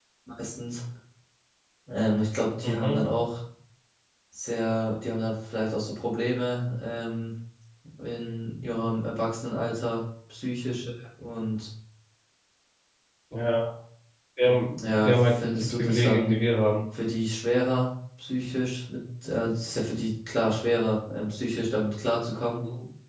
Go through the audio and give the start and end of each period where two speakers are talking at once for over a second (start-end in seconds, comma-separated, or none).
14.8-16.4